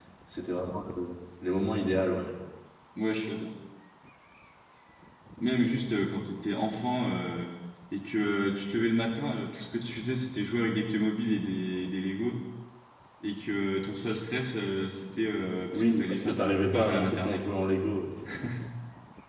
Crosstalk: present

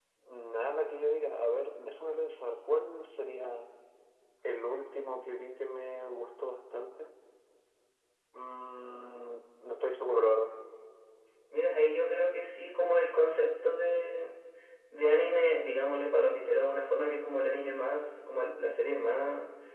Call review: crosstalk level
none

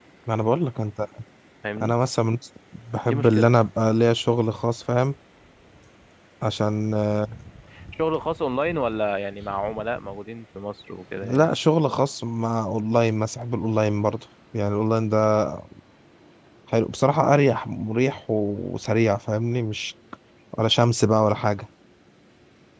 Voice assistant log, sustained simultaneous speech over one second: none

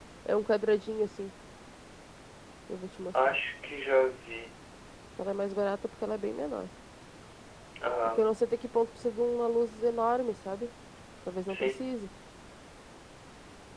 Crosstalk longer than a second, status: none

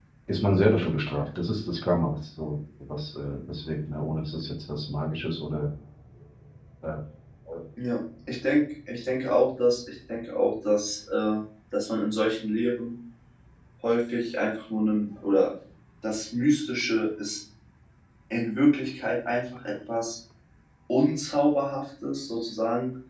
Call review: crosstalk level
none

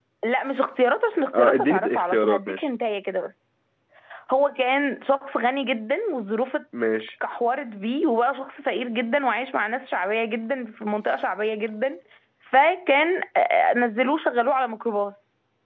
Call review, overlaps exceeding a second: present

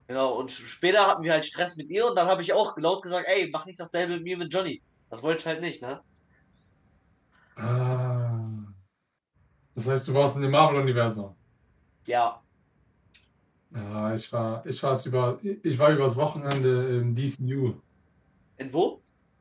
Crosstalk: none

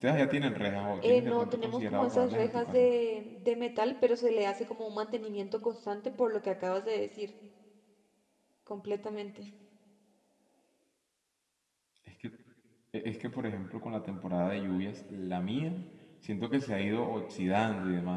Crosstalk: present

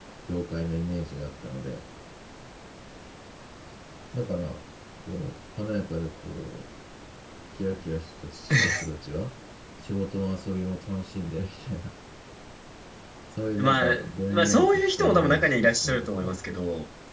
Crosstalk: present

